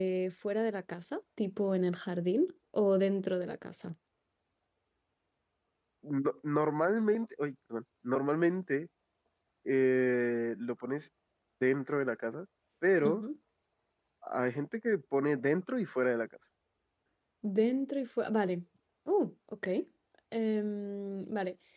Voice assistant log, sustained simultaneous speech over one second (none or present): none